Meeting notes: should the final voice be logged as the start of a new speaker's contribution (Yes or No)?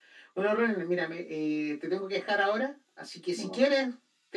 No